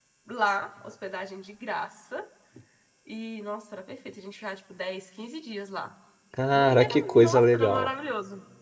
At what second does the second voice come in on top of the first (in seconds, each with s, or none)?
6.5 s